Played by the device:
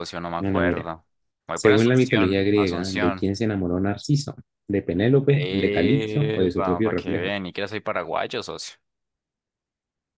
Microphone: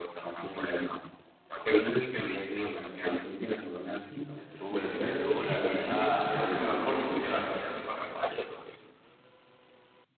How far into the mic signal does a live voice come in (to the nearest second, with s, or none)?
4 s